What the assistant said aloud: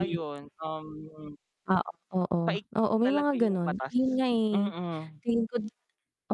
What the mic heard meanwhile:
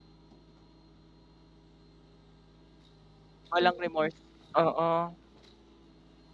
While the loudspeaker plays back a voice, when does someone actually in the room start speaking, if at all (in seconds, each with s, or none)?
3.5 s